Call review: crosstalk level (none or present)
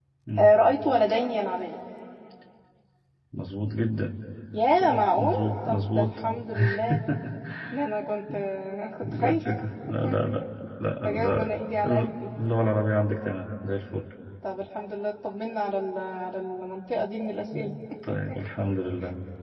present